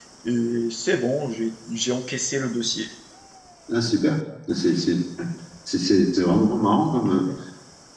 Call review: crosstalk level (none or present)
none